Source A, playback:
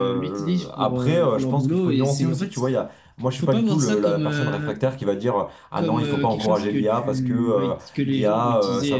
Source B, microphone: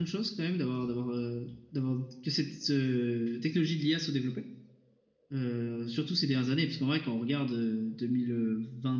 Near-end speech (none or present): present